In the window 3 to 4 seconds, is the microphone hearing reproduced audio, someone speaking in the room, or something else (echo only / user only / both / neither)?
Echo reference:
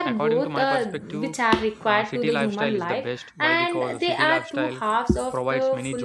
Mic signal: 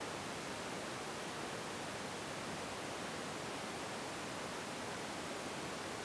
neither